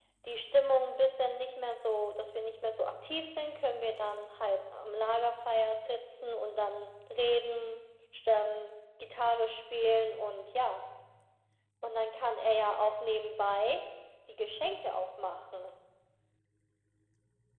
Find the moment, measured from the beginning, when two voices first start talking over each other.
none

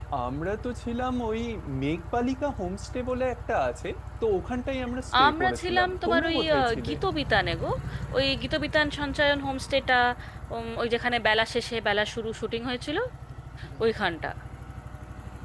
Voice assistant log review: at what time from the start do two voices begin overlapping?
5.1 s

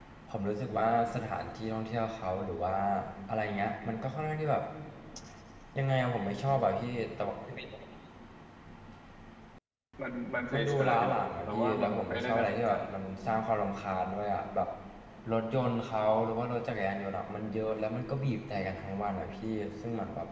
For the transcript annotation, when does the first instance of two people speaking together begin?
10.5 s

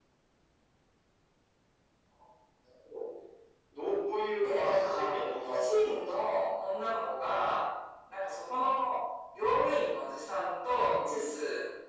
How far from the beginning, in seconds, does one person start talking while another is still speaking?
4.4 s

